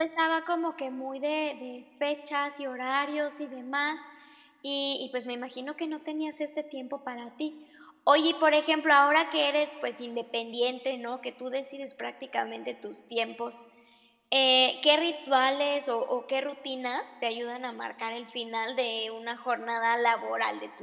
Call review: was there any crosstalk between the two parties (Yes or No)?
No